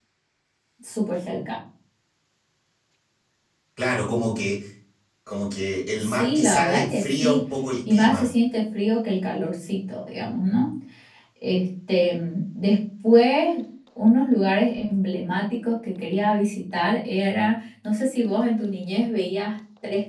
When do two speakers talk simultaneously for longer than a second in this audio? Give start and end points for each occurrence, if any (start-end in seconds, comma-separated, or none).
6.0-7.4